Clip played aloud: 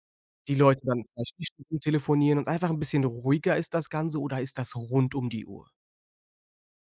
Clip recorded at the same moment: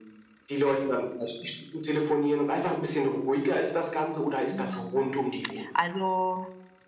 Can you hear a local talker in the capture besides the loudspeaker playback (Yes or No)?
Yes